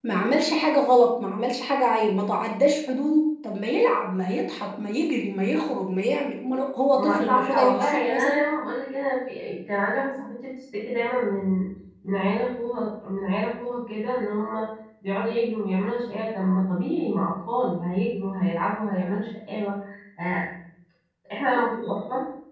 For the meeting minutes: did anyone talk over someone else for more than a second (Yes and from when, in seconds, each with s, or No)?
Yes, from 7.0 s